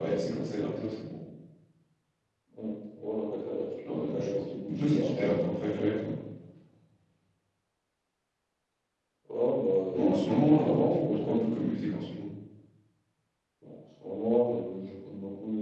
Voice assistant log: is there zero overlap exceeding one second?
No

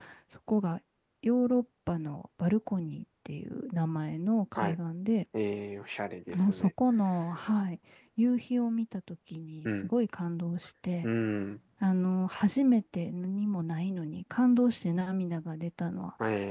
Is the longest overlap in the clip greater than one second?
No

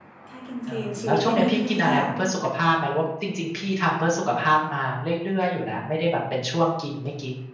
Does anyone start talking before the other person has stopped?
Yes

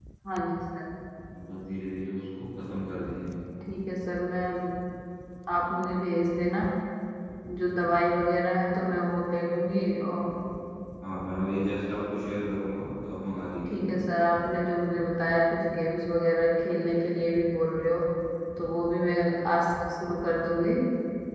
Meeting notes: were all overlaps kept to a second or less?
Yes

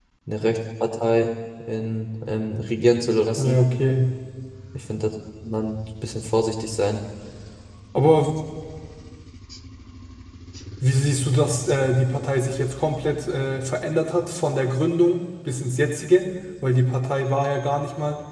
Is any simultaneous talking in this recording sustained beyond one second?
No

